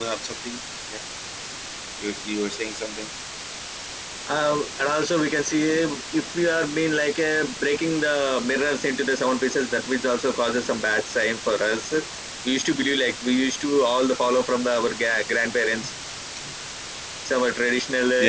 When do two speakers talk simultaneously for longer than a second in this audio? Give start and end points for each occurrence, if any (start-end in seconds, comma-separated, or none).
none